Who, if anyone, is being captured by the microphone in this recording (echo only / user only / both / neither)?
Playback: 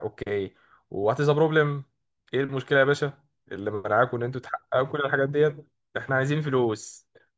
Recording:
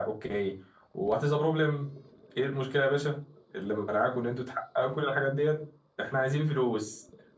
echo only